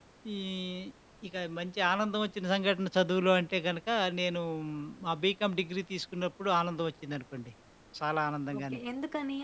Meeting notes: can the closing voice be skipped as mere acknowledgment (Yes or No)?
No